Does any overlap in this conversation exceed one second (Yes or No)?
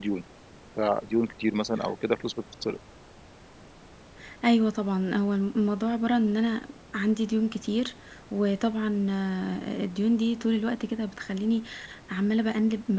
No